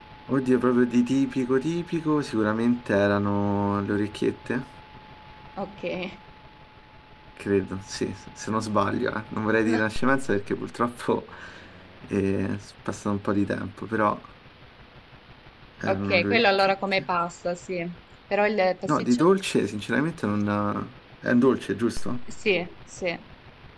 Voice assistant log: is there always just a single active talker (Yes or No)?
No